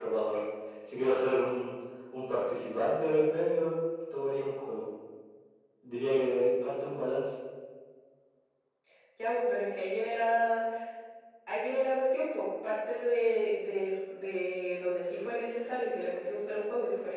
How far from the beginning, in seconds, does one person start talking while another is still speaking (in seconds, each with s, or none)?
none